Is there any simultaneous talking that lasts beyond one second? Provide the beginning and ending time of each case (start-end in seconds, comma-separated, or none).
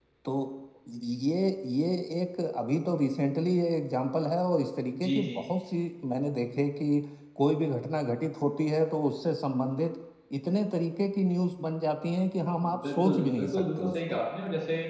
12.8-14.2